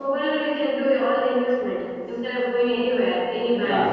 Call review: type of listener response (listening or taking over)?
taking over